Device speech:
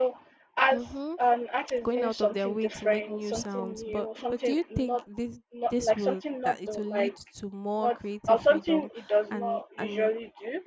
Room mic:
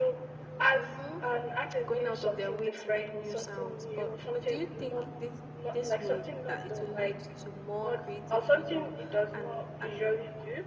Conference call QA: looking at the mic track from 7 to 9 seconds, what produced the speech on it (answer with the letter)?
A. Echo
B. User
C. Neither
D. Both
A